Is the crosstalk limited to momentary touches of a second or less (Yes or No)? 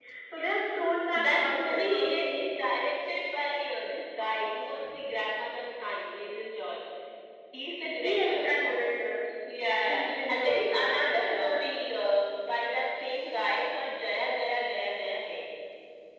No